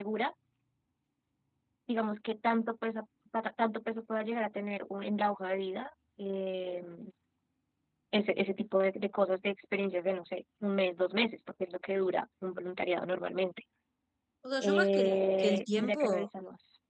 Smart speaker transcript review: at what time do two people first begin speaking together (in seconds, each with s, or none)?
14.6 s